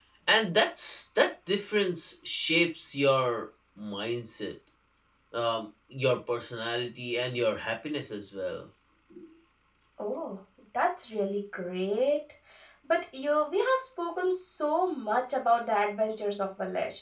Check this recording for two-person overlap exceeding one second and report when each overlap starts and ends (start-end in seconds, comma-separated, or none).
none